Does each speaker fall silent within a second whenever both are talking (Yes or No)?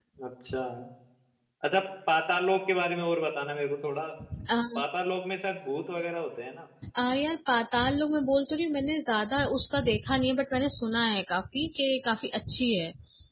Yes